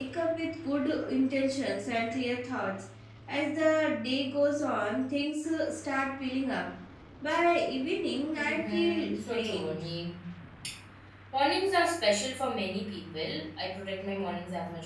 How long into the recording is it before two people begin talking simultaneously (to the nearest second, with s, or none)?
8 s